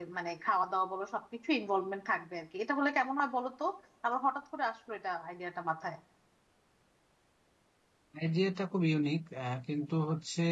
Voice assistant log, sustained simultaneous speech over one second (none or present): none